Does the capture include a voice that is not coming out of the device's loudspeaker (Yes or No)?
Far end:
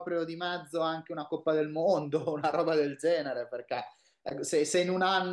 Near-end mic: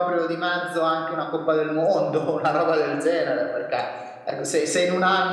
No